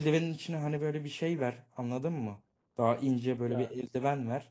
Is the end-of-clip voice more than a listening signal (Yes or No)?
No